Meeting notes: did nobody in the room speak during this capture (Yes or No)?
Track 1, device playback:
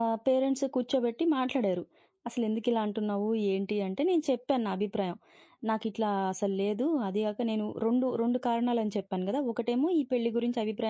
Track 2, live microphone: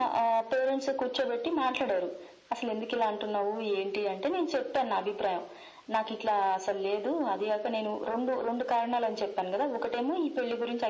Yes